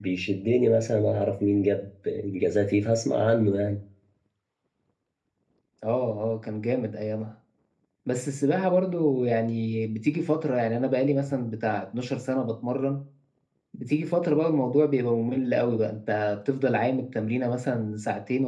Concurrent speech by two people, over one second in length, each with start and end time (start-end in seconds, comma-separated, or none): none